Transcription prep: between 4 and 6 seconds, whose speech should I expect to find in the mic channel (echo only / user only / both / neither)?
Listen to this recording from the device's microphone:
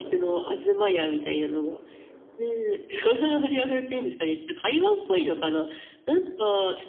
echo only